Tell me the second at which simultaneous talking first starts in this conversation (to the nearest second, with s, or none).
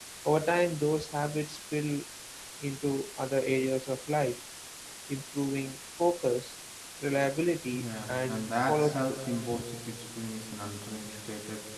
8 s